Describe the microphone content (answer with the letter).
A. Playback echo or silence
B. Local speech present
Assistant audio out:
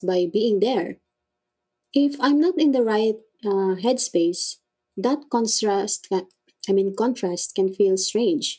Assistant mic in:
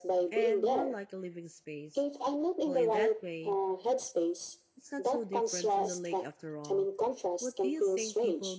B